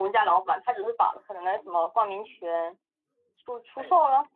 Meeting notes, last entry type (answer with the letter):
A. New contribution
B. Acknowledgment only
A